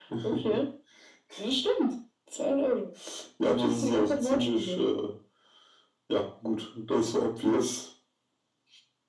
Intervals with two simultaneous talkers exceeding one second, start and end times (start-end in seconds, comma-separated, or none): 3.4-4.8